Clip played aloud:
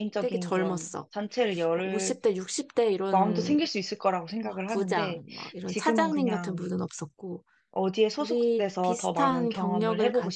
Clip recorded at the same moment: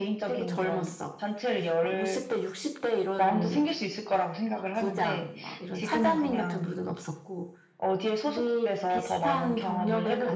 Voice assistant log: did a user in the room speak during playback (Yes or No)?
No